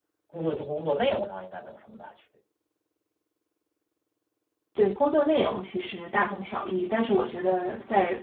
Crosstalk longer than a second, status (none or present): none